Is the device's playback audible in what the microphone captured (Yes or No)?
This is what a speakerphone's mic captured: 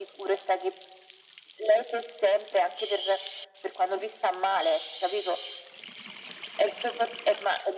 Yes